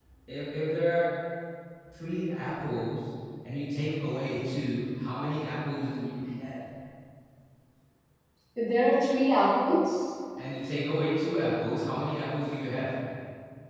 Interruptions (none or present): none